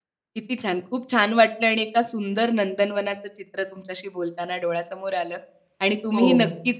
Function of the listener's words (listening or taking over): listening